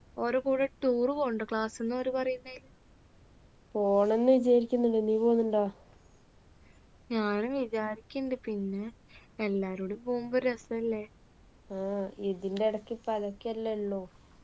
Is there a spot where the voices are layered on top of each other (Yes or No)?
No